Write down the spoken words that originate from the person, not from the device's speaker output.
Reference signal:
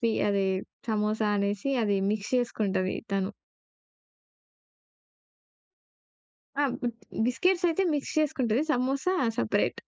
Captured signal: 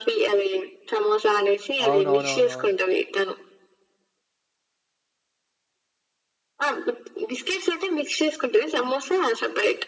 అవునవునవునవును.

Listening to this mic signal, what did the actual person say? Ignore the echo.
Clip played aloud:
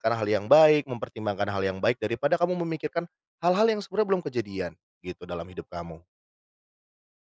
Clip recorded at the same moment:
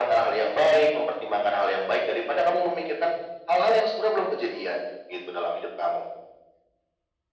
none

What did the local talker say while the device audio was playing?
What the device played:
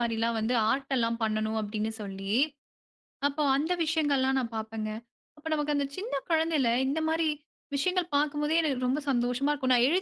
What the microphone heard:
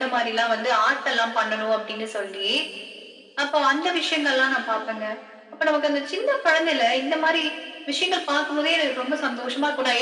none

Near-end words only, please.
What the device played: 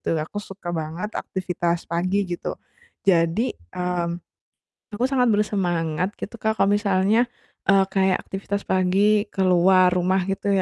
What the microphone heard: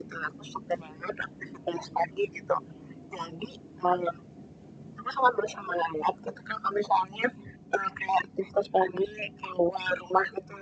none

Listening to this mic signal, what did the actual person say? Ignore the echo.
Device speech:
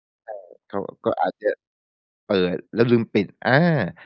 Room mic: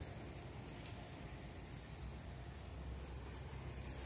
none

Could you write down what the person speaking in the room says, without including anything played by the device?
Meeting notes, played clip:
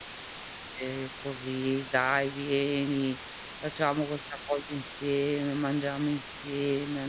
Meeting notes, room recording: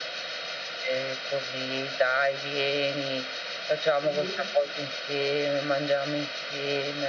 Mh-mh.

